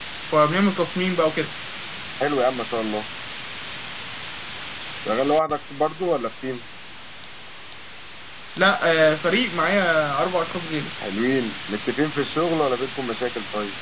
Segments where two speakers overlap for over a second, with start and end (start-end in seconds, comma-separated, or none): none